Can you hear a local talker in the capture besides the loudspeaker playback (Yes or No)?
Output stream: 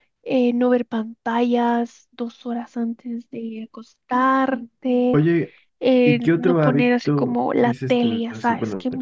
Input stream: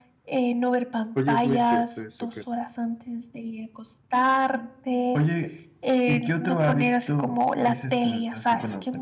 Yes